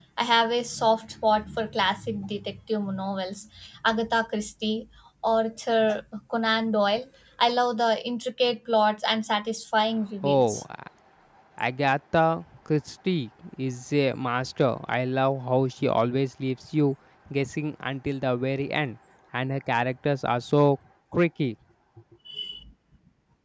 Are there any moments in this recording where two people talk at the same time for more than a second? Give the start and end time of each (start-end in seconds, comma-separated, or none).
none